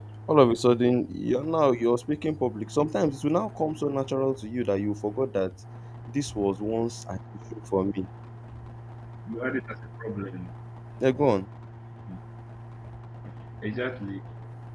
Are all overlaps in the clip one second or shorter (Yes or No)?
Yes